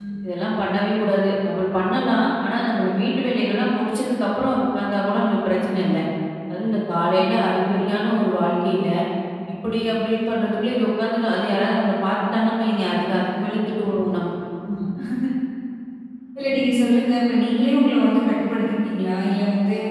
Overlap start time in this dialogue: none

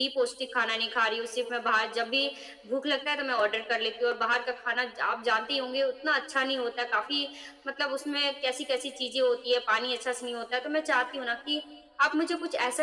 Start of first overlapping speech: none

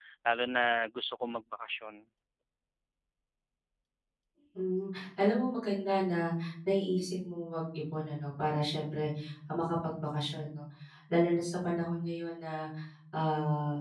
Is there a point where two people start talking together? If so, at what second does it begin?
none

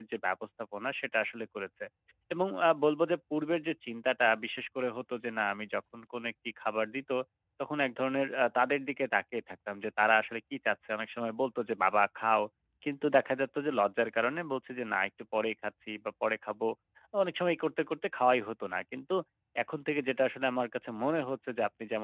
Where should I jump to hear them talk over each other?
none

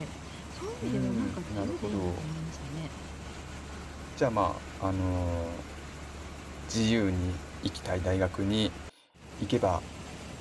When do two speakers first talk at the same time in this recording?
0.8 s

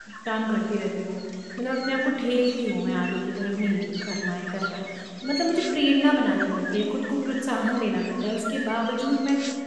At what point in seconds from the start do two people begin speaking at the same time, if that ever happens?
none

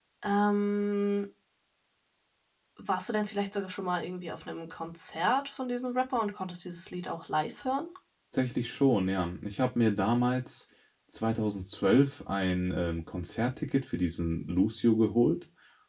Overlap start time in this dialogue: none

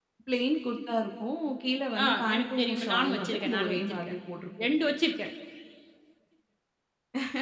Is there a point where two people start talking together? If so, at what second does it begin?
2.0 s

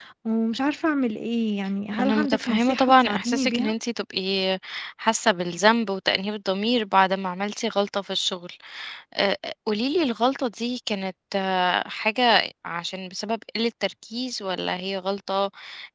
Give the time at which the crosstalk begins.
1.9 s

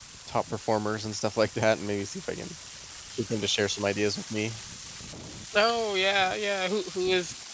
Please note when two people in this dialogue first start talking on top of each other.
none

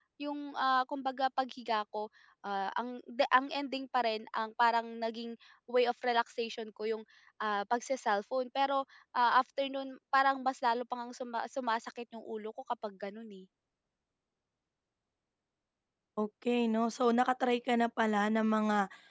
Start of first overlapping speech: none

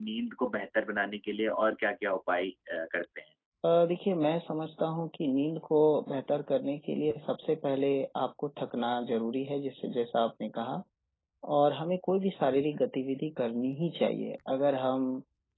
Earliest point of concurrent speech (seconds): none

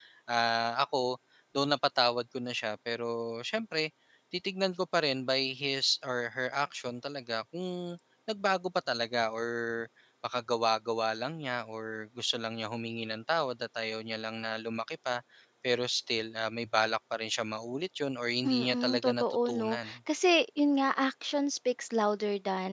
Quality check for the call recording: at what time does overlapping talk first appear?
18.4 s

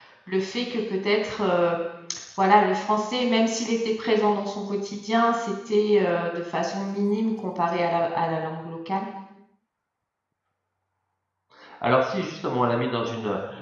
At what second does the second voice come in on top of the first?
none

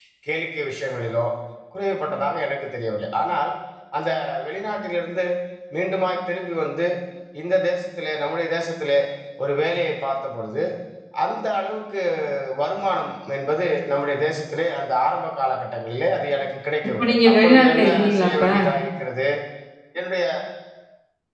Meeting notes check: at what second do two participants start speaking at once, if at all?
17.0 s

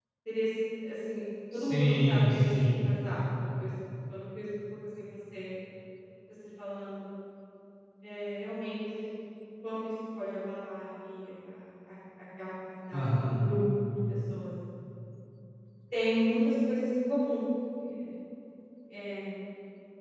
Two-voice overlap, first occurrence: 1.5 s

